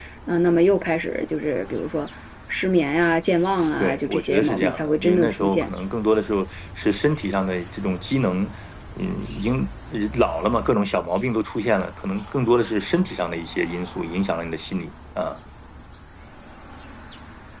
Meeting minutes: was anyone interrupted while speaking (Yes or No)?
Yes